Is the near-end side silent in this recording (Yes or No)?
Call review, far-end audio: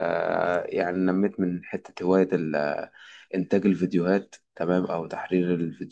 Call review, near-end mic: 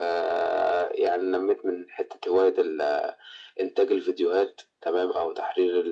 Yes